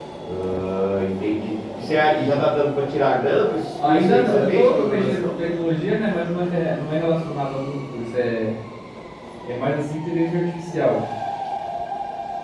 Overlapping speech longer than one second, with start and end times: 3.8-5.3

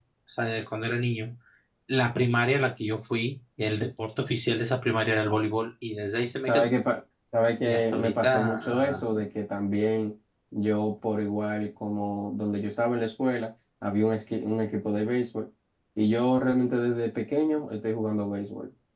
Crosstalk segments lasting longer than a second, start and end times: 7.7-9.0

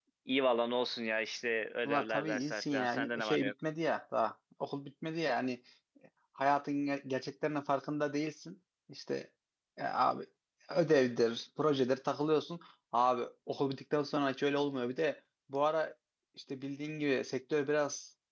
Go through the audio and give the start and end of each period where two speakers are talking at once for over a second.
1.9-3.5

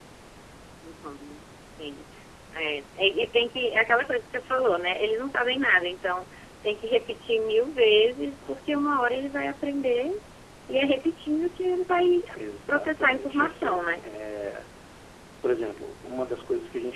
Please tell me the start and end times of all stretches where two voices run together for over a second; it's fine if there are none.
12.7-13.9

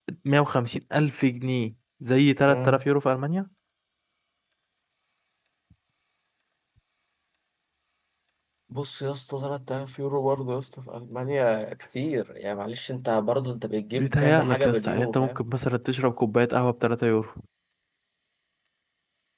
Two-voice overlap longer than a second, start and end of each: 13.9-15.4

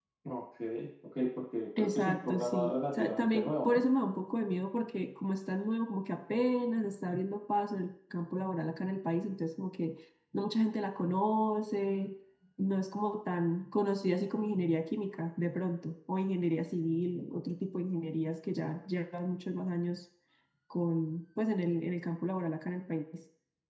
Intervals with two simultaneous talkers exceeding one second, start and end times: 1.8-3.8

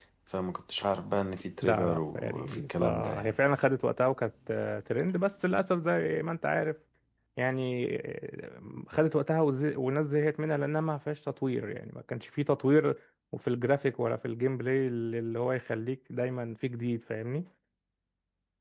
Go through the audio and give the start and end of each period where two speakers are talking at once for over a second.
1.6-3.4

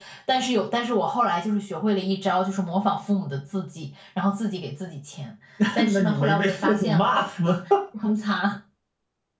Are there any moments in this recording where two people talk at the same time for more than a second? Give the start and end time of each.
5.9-7.1

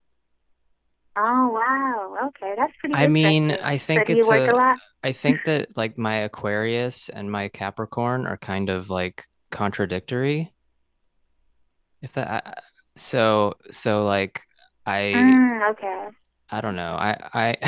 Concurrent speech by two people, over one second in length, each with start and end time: 2.9-4.6

